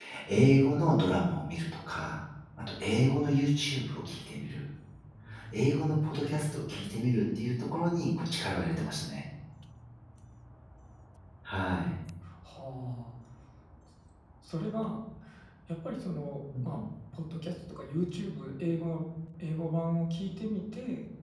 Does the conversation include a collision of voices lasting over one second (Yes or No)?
No